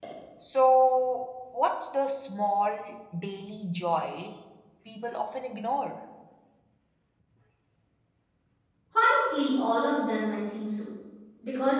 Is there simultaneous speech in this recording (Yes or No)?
No